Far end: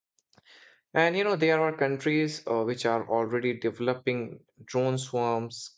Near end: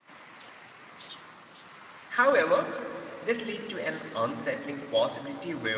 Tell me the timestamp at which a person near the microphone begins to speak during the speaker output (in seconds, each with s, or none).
2.2 s